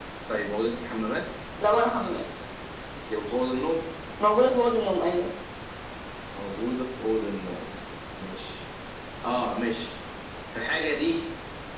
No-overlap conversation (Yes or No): Yes